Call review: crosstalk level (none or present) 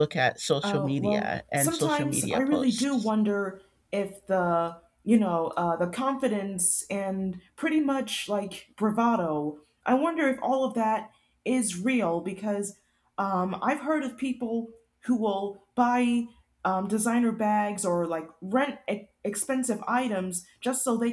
present